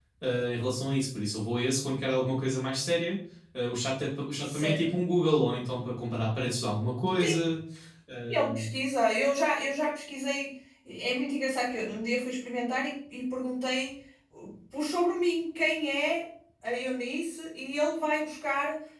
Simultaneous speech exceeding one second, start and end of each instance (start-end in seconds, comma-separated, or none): none